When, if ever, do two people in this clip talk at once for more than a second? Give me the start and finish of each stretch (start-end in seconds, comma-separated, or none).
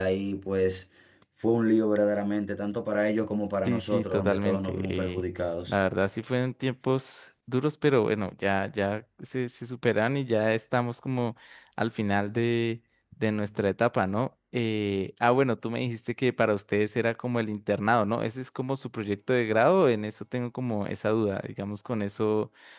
3.6-5.2